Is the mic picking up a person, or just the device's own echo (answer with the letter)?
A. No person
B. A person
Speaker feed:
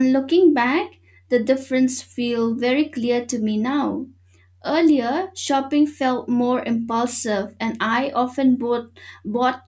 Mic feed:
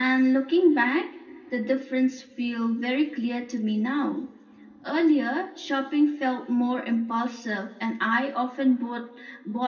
A